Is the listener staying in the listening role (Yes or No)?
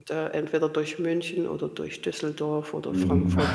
No